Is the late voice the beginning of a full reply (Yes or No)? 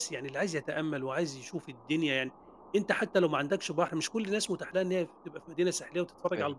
No